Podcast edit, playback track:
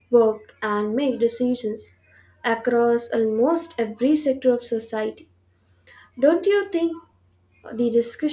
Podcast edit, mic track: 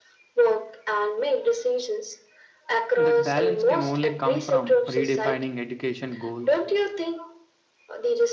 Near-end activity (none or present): present